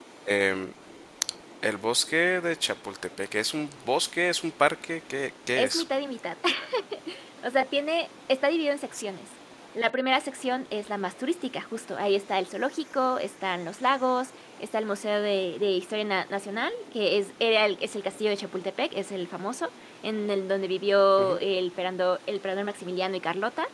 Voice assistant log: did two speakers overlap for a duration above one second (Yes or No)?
No